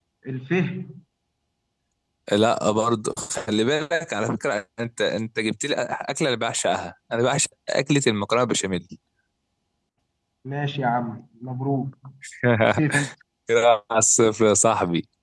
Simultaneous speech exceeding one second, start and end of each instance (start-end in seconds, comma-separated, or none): none